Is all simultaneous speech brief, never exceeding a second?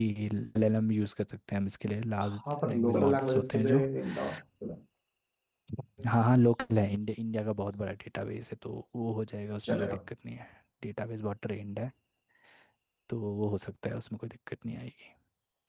No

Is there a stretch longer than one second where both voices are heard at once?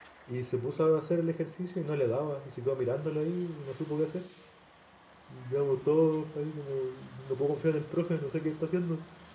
No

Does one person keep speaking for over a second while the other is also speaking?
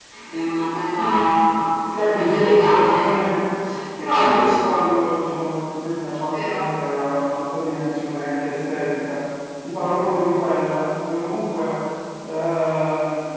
Yes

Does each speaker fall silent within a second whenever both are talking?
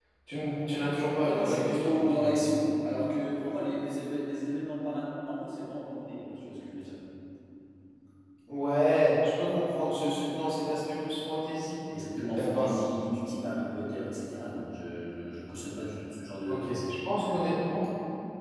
No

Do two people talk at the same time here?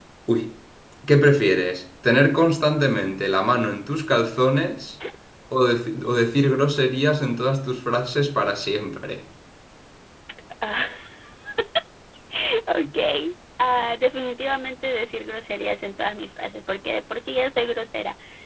No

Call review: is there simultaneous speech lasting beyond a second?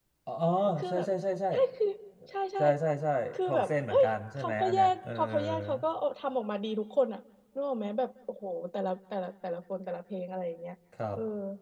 Yes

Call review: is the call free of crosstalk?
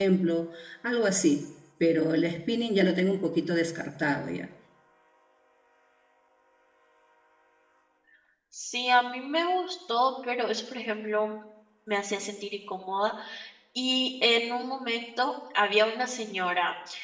Yes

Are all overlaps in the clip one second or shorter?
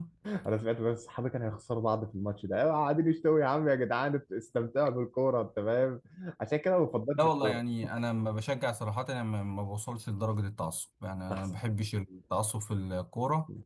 Yes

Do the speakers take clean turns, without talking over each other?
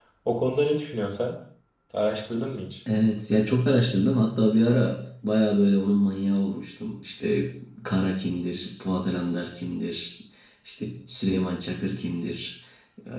Yes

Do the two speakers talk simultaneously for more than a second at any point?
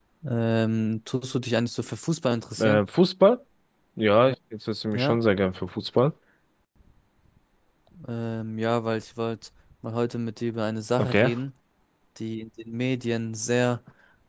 No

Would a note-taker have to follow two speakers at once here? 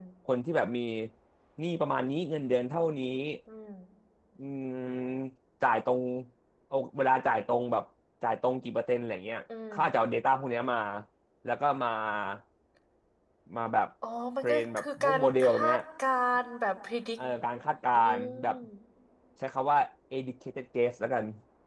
Yes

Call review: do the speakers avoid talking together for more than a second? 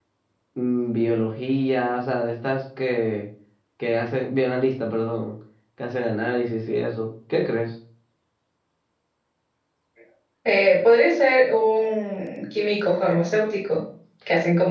Yes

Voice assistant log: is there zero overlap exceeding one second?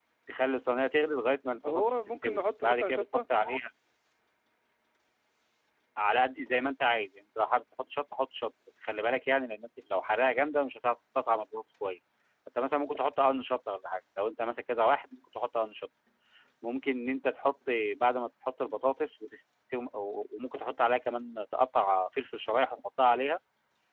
No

